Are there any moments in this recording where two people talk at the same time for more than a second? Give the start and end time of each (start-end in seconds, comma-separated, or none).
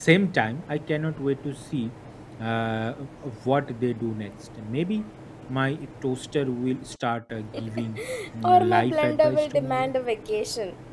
8.5-9.9